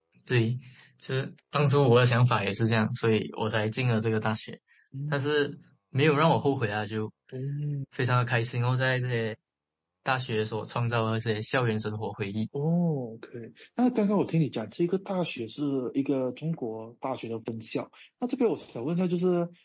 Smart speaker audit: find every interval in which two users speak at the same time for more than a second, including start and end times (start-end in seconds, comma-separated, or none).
none